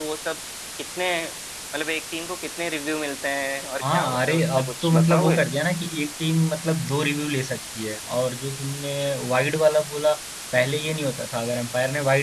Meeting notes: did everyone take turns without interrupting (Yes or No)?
No